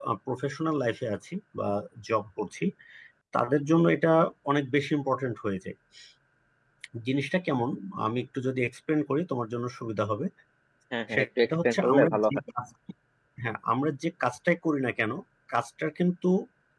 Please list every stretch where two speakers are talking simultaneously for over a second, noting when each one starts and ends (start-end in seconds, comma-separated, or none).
11.1-12.4